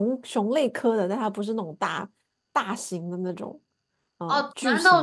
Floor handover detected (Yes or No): Yes